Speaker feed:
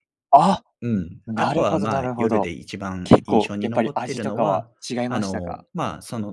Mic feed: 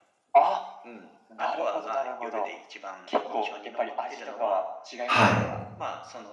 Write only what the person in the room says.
はい。

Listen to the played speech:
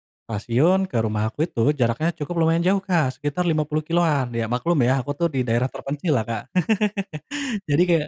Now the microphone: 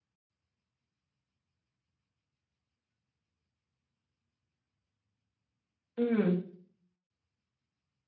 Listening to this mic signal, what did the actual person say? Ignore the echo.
Mmm.

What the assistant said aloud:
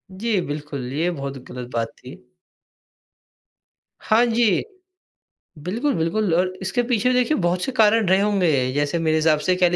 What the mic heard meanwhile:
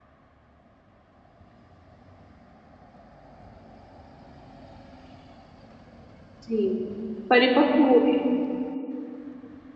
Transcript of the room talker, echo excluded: जी, परिपक्व हो रहे हैं।

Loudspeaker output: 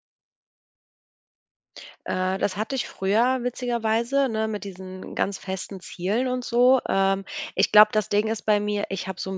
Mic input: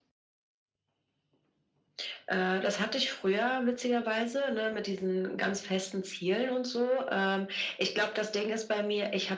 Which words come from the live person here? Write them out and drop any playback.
none

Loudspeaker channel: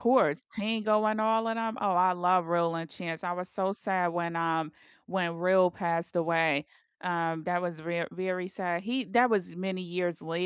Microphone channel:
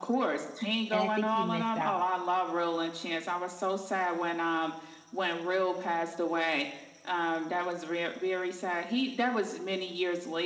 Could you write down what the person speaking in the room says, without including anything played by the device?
And I think he missed out.

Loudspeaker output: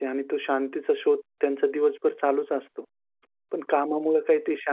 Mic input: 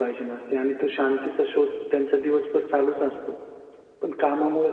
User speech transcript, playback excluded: none

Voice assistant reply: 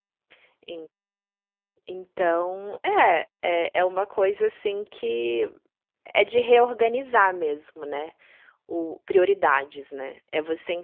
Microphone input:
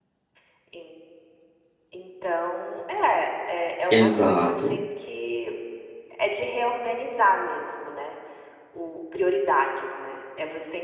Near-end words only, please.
Exato.

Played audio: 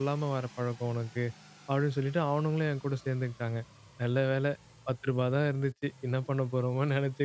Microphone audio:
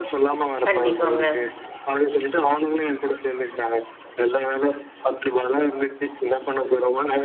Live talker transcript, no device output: கண்டிப்பாங்க.

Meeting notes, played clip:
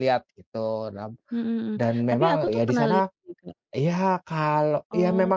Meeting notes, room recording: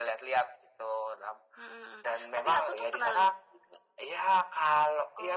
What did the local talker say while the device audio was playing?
none

